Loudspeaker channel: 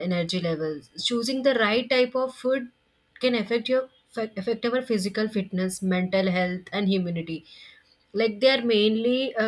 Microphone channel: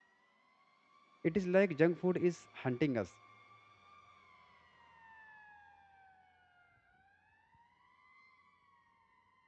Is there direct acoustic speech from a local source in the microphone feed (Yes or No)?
Yes